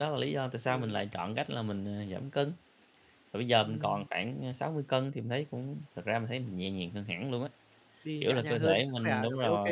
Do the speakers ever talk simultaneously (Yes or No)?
Yes